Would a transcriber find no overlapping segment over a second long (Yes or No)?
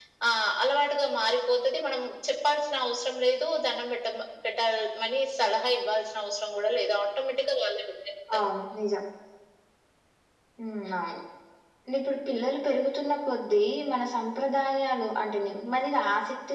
Yes